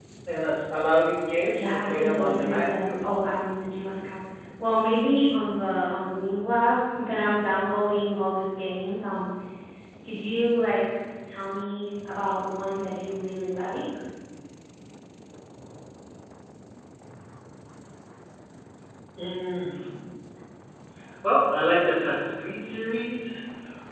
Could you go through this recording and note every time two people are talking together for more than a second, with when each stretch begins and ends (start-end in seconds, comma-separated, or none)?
1.6-3.0